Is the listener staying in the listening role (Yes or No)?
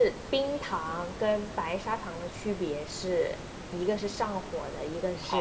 No